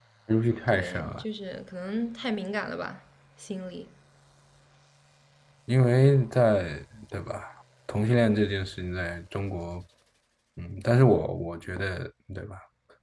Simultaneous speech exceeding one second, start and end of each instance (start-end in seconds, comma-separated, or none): none